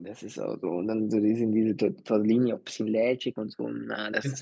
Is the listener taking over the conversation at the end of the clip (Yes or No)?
Yes